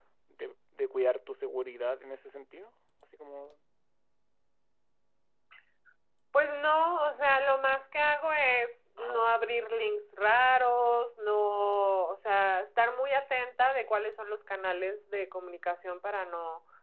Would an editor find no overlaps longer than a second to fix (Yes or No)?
Yes